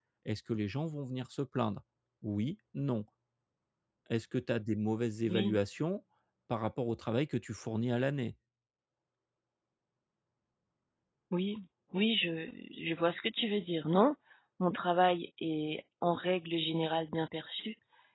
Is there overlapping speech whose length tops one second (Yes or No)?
No